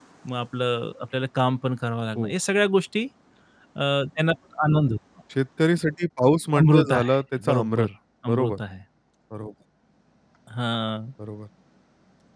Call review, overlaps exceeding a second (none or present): present